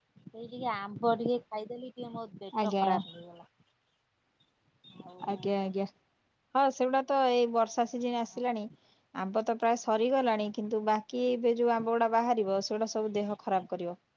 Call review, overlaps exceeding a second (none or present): none